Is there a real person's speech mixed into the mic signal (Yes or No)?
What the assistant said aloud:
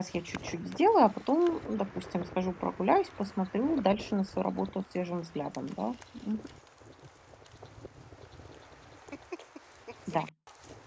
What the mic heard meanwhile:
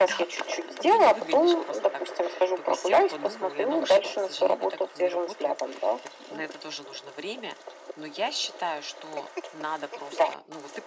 Yes